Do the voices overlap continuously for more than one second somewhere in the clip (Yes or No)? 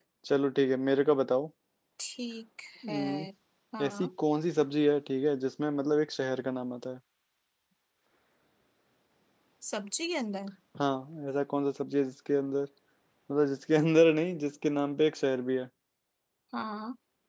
No